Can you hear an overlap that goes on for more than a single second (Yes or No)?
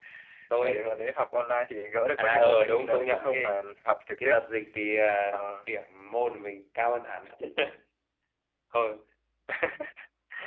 Yes